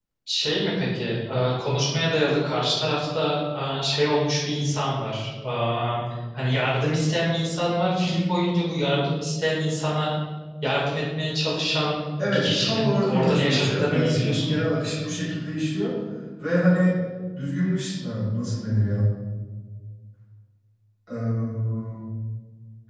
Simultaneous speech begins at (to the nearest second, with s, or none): 12 s